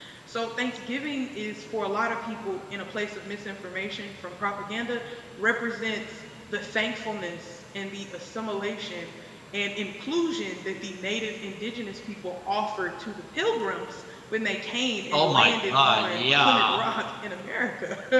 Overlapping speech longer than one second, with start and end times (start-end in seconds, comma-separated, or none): 15.1-16.8